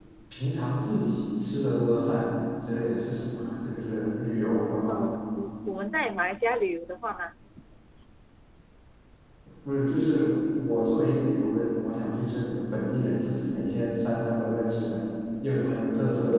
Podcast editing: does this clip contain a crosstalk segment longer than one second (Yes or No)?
No